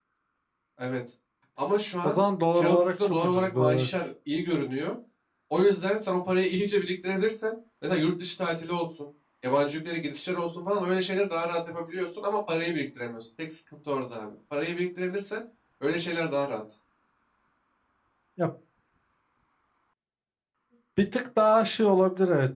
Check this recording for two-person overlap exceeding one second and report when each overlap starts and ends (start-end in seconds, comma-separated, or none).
2.6-3.9